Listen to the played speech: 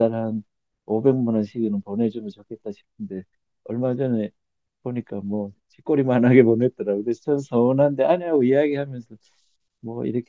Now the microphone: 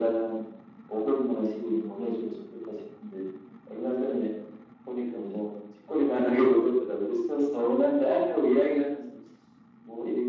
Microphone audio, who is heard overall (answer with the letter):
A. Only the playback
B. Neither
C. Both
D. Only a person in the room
C